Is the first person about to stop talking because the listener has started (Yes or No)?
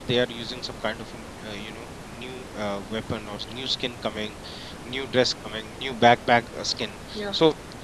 No